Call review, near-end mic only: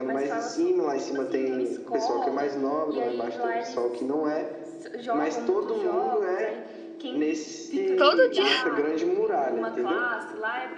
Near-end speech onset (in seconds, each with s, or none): 8.0 s